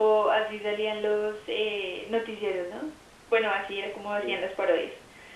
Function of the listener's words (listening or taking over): listening